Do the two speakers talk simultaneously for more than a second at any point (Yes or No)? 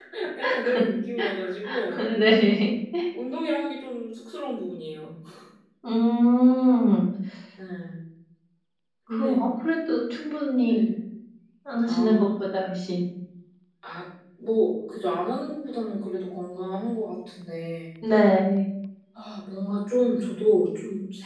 No